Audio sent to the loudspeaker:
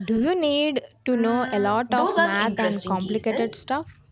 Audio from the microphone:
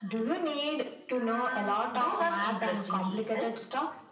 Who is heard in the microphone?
echo only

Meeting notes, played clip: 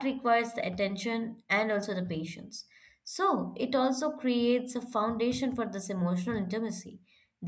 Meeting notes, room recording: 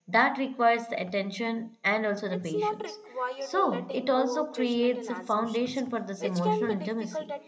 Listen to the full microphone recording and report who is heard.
both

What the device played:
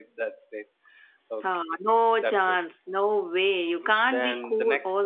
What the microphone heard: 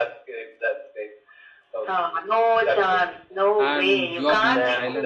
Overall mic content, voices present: both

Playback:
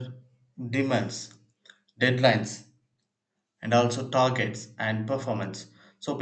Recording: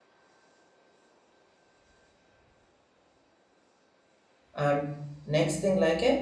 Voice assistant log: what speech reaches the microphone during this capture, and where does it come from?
user only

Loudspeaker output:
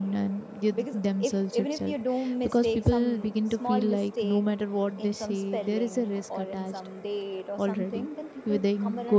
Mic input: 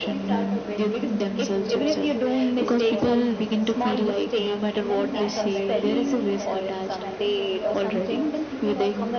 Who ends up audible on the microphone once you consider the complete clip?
both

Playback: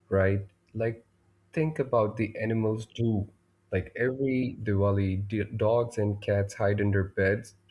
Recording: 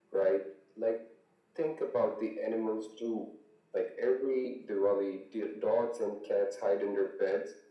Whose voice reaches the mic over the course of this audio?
echo only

